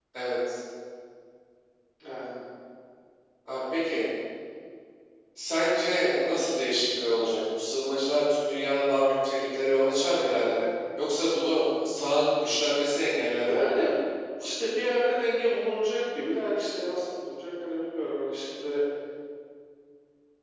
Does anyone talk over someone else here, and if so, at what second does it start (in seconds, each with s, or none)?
none